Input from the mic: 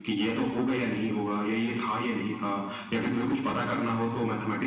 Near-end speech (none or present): none